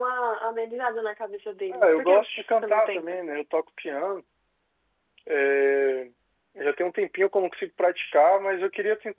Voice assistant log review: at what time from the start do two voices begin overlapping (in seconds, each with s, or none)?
1.7 s